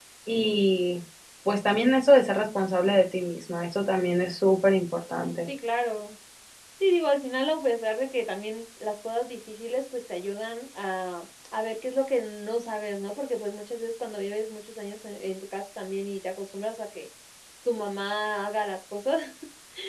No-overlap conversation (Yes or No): Yes